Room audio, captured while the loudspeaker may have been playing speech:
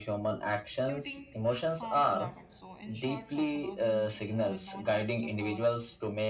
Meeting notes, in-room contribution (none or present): present